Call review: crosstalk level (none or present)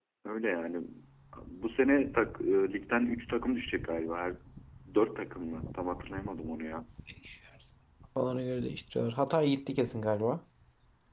none